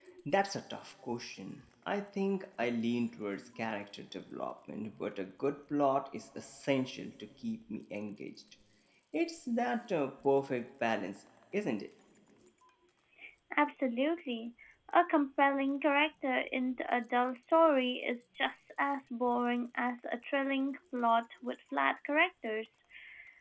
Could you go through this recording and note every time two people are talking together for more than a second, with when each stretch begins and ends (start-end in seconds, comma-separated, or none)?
none